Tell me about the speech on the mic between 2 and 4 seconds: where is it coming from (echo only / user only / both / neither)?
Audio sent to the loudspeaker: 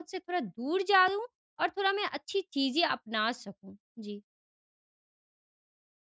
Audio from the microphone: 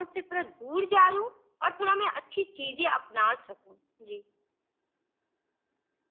echo only